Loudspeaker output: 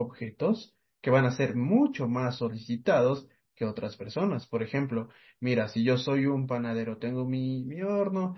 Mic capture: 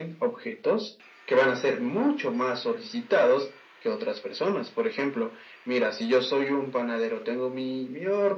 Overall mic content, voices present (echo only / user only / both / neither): echo only